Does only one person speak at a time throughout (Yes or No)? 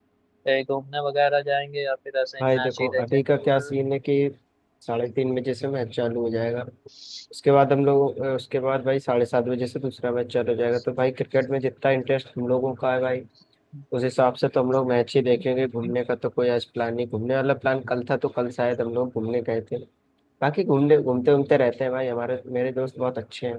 No